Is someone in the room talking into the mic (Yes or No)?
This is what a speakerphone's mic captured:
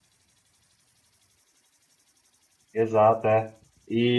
Yes